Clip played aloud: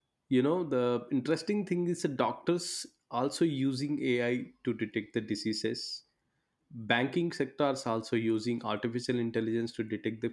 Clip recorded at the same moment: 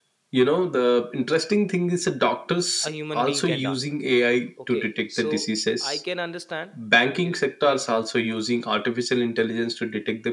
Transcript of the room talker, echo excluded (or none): a human being can done okay so i can understand eh, like